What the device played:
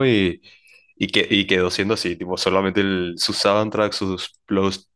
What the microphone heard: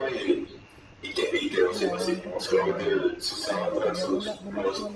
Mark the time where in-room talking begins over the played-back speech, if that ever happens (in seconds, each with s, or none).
1.7 s